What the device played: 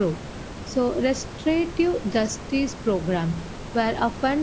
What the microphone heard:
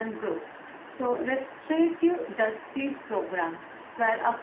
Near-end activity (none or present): none